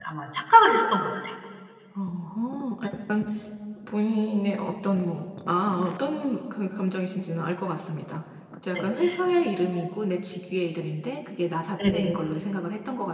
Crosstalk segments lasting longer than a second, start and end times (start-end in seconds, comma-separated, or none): none